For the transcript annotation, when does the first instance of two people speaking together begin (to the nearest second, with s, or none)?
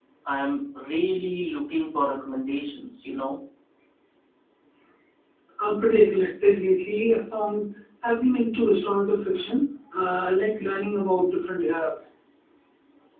none